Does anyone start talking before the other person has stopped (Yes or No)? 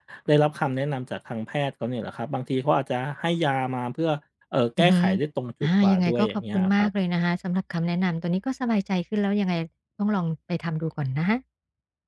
Yes